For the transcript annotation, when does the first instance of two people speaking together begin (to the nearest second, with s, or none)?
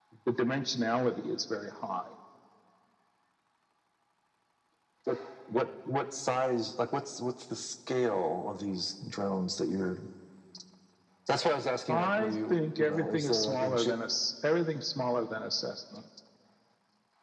12 s